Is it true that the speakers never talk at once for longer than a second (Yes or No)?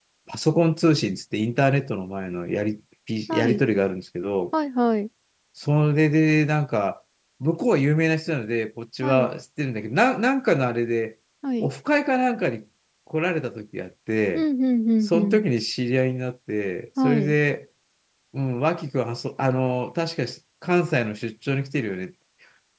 Yes